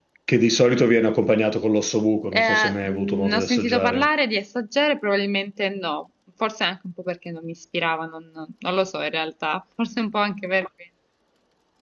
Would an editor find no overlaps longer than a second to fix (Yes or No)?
No